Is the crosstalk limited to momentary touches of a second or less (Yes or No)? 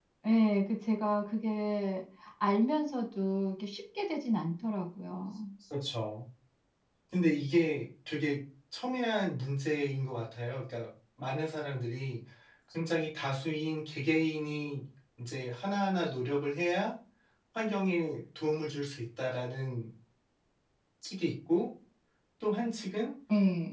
Yes